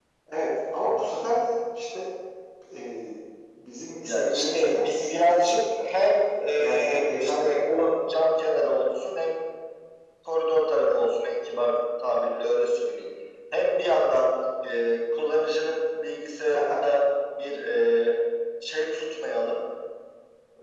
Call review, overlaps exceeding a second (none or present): present